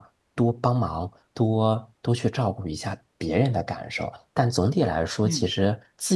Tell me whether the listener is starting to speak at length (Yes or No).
No